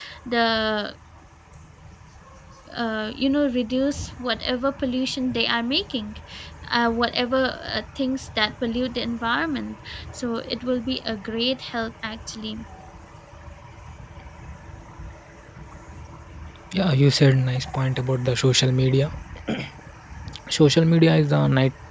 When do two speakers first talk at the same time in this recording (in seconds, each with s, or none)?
none